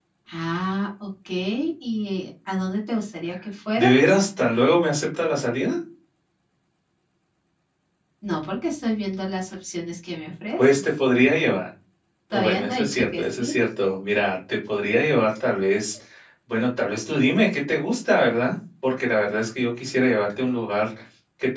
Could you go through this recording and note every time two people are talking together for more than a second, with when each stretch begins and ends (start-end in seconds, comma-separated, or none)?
12.3-13.6